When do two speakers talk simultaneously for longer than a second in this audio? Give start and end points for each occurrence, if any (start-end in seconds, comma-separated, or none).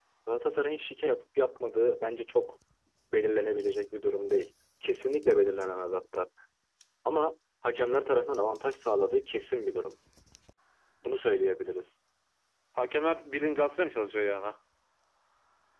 none